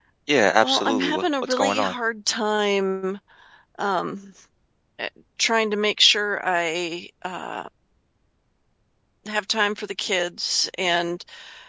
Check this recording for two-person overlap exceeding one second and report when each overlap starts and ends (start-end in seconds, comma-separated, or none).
0.6-1.9